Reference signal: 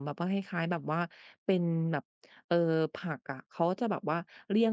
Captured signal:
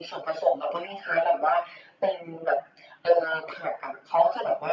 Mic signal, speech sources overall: echo only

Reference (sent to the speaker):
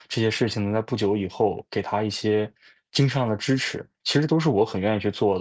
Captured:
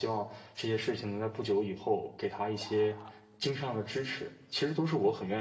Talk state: echo only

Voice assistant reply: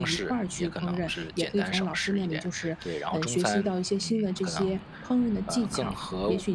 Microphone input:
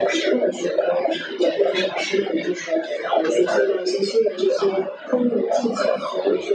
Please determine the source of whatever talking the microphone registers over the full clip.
echo only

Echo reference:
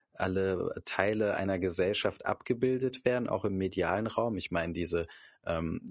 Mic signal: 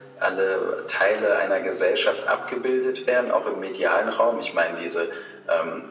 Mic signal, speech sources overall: echo only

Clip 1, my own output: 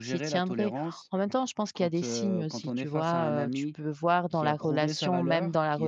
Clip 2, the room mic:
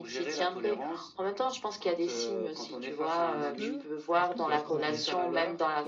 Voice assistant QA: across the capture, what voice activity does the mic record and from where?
both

